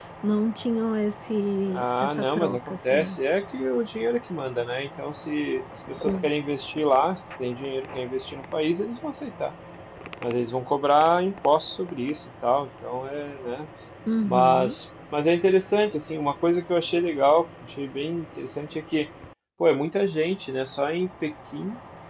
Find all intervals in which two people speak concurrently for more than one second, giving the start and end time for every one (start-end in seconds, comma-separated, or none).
1.7-3.2